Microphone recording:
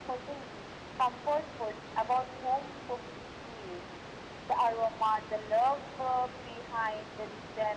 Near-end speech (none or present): none